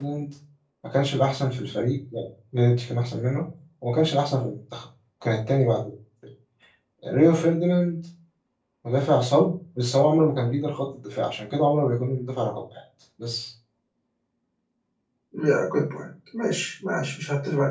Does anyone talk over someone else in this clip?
No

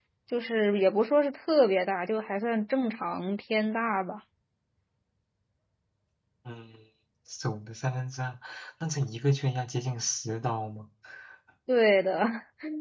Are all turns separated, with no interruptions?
Yes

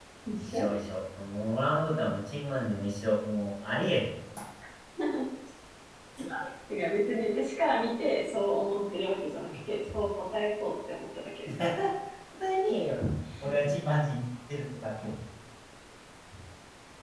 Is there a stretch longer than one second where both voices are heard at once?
No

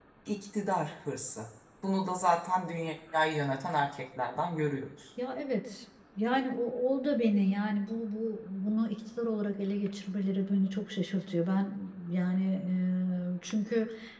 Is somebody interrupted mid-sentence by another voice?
No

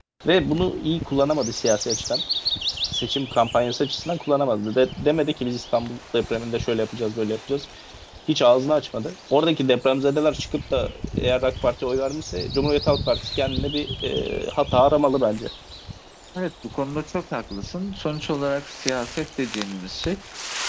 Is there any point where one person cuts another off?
No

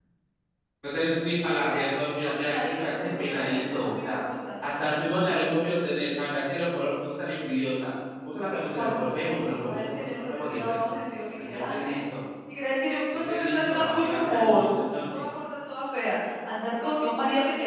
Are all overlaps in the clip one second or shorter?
No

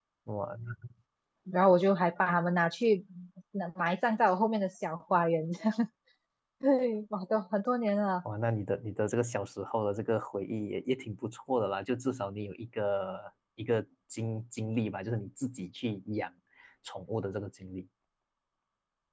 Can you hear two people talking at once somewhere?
No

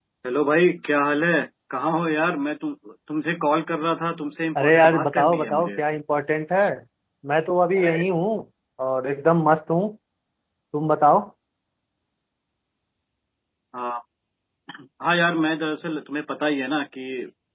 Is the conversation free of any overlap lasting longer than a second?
No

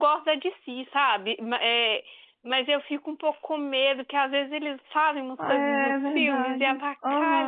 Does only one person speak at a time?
No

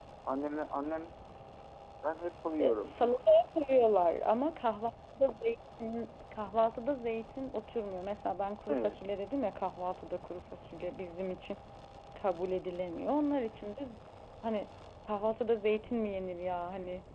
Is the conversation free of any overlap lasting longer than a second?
Yes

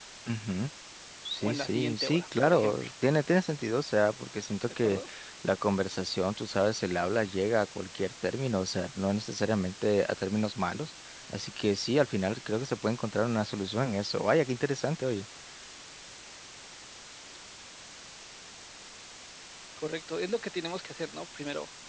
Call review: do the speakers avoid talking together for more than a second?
No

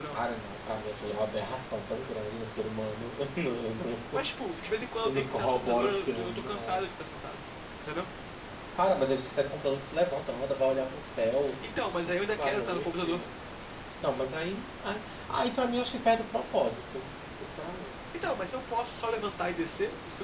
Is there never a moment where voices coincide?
No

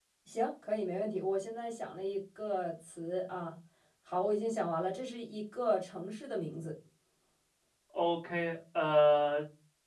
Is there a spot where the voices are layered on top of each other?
No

